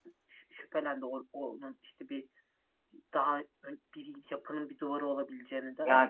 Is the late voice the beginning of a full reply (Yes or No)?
Yes